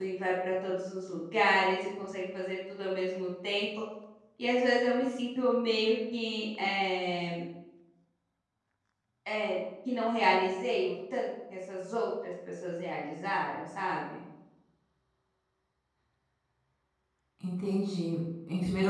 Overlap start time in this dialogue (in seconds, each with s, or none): none